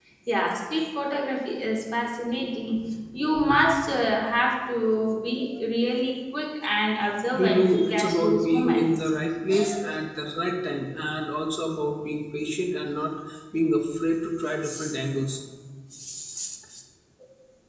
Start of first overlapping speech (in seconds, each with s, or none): 7.3 s